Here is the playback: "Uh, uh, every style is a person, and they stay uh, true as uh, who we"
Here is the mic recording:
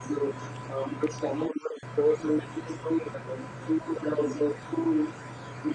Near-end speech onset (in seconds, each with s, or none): none